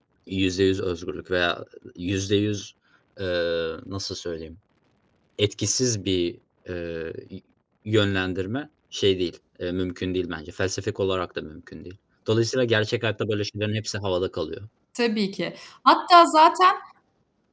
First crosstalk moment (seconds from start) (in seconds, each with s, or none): none